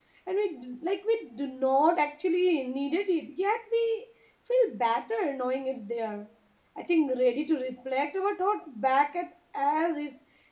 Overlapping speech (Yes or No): No